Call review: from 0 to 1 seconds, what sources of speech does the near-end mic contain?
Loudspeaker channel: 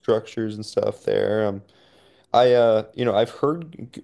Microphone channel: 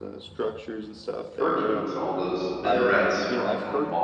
echo only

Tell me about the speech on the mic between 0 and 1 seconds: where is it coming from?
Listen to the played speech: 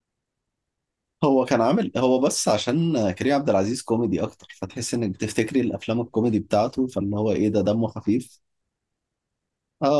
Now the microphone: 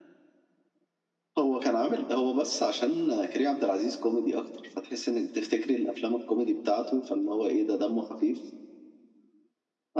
neither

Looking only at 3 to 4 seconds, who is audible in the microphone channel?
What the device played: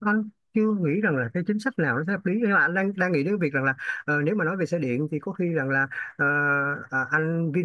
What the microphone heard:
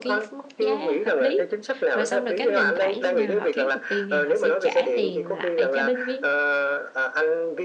both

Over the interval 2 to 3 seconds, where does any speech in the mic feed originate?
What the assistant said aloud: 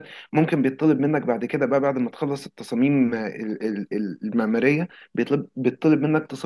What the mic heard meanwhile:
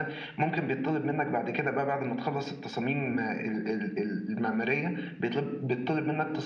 echo only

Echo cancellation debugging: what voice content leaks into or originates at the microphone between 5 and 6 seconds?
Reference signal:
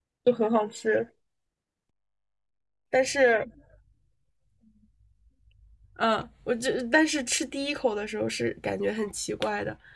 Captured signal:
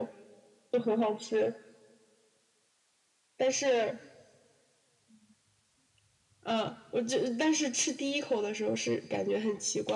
neither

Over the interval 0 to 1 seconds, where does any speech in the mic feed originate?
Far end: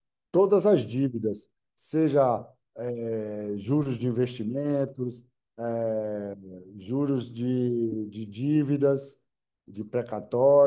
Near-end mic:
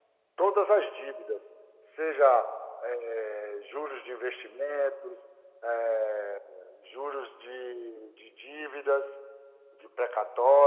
echo only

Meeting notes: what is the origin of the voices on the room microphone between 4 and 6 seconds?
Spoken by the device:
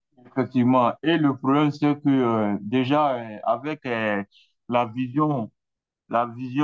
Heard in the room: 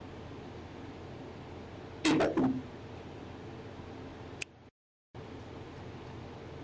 neither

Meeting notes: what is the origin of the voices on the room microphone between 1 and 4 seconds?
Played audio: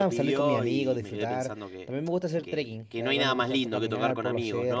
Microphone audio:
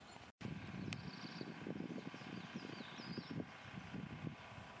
neither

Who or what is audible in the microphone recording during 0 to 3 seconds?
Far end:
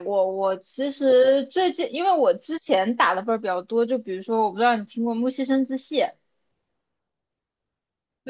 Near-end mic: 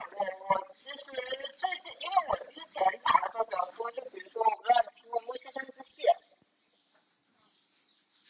echo only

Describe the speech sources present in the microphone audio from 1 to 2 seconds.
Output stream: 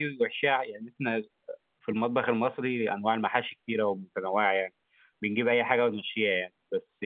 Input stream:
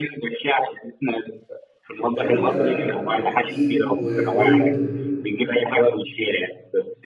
echo only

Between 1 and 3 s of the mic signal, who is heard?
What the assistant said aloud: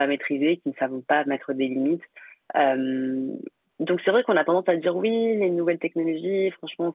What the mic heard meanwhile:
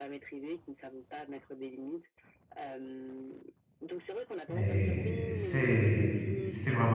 echo only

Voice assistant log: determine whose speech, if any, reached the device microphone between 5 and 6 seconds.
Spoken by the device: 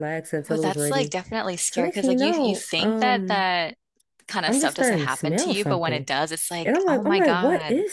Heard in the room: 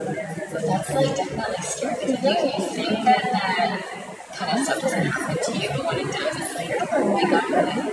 echo only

